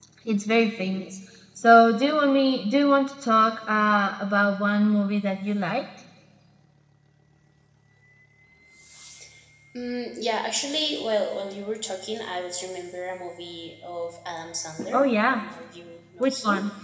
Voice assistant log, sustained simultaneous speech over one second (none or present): none